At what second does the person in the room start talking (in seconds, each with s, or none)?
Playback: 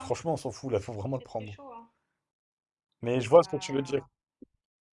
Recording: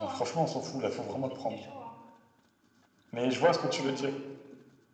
none